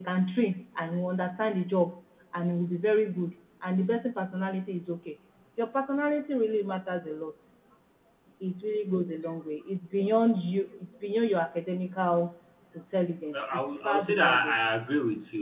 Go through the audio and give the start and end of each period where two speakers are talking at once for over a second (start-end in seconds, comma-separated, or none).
13.3-14.6